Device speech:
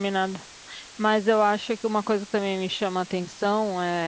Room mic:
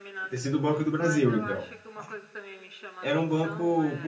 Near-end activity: present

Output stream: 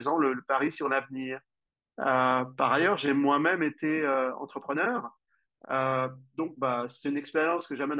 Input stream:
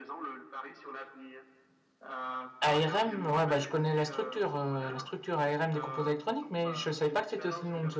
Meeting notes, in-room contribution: present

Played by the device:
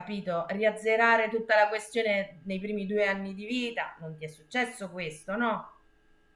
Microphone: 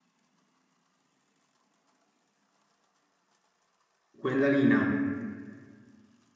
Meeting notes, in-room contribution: present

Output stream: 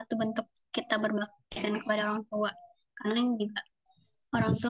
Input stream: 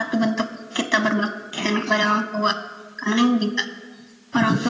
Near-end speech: none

